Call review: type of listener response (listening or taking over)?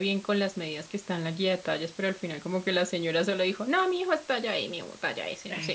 taking over